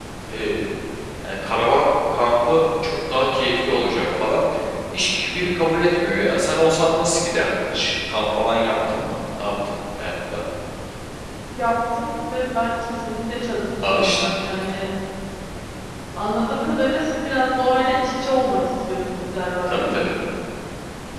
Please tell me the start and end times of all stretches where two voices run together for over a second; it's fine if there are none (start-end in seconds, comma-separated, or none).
none